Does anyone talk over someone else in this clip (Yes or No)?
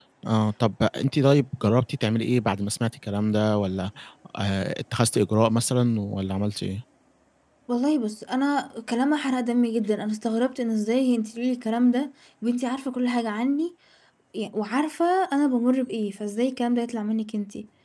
No